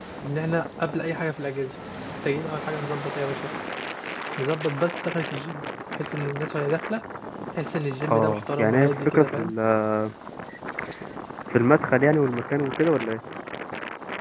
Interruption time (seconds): 8.1 s

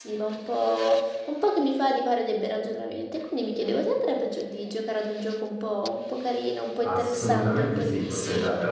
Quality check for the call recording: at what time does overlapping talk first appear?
6.8 s

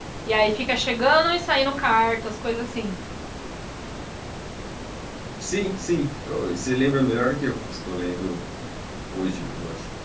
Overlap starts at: none

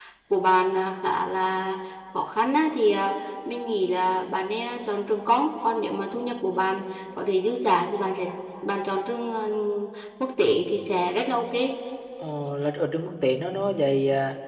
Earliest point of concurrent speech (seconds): none

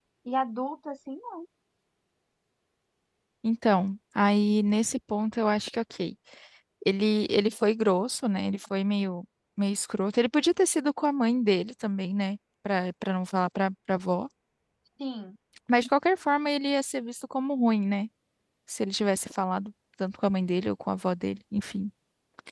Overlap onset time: none

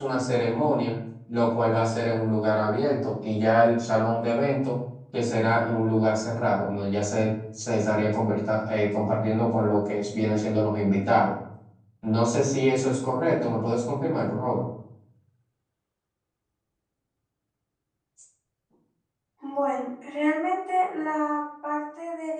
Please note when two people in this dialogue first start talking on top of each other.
none

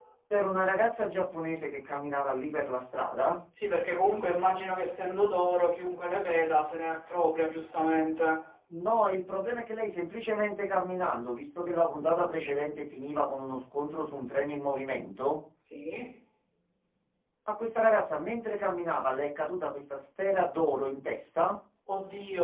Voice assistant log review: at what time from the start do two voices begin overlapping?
none

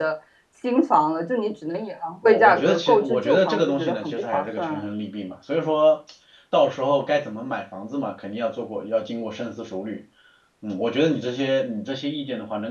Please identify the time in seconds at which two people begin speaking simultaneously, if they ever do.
2.2 s

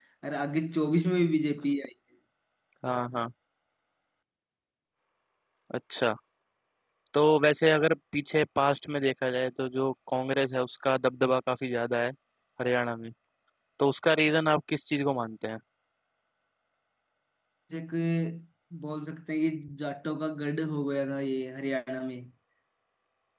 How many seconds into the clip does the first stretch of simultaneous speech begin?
none

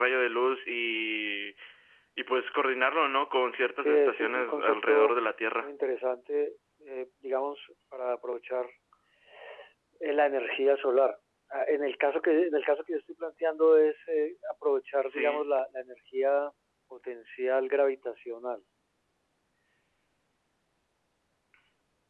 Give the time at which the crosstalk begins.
3.8 s

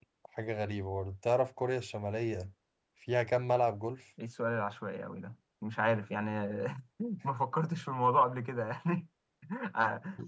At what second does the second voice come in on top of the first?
none

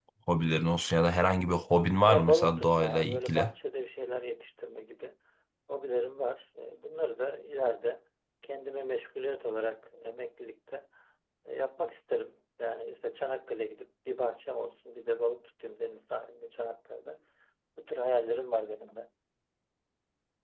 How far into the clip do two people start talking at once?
2.0 s

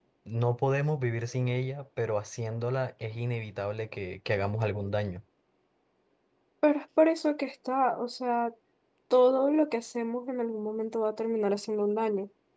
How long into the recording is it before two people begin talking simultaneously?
none

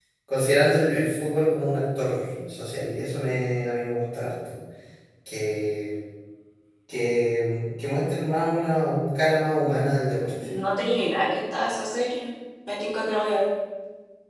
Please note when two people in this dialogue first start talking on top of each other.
none

